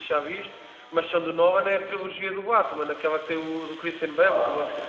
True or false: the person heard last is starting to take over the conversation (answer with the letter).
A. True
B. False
A